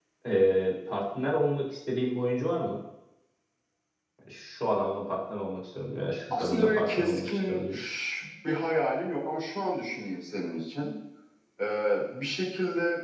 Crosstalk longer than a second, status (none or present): present